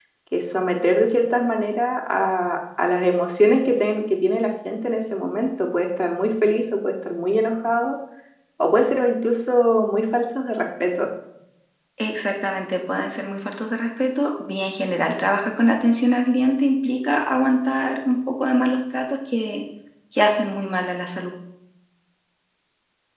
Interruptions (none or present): none